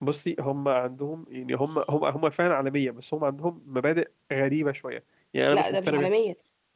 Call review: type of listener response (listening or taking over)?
taking over